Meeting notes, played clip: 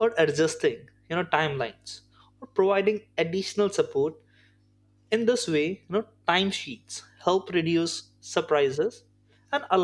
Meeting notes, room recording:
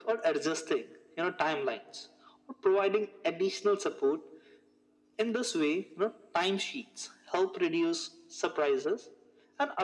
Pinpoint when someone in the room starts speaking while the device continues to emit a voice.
none

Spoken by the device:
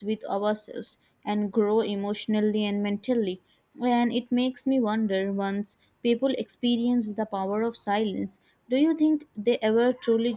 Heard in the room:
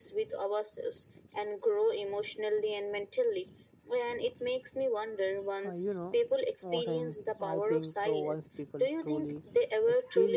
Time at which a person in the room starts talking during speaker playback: 5.6 s

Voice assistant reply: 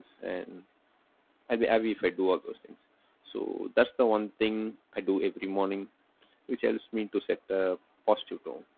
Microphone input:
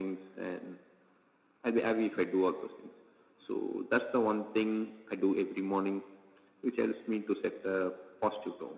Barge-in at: none

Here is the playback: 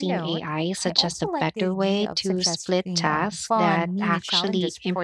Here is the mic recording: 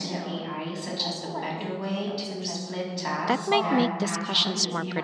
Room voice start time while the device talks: 3.2 s

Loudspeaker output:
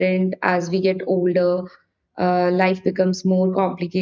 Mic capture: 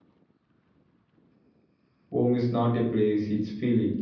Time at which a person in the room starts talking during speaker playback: 2.1 s

